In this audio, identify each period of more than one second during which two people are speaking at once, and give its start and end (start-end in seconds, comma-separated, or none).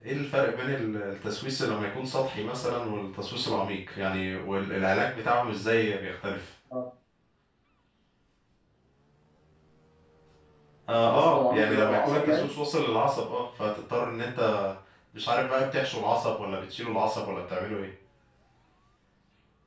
11.0-12.5